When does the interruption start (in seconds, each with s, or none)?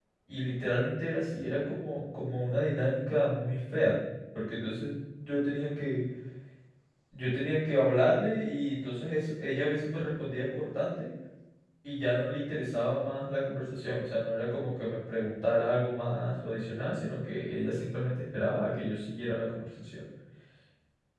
none